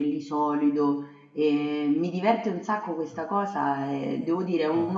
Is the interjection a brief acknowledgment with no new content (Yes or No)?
Yes